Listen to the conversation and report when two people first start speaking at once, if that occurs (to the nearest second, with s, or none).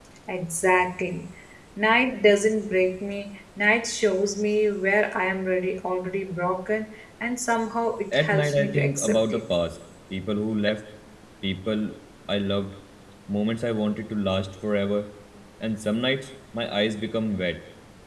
8 s